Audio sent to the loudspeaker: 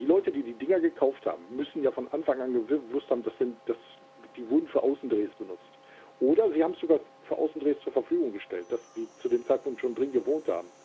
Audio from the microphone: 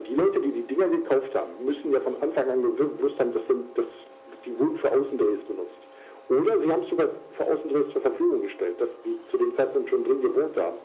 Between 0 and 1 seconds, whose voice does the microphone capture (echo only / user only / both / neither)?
echo only